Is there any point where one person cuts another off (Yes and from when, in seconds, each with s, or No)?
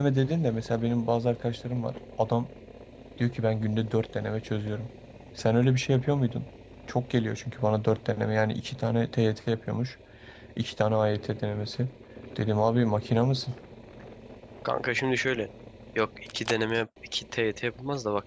No